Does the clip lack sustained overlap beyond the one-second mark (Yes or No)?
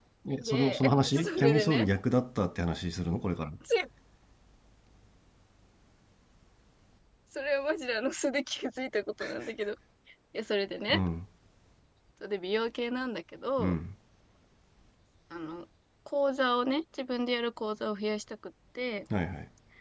No